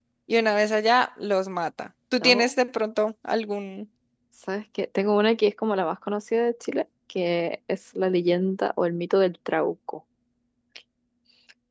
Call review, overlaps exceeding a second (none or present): none